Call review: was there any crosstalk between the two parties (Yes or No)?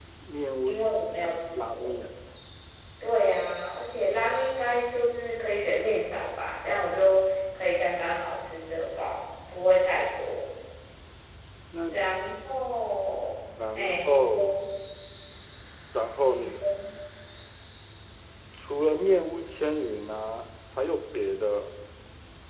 Yes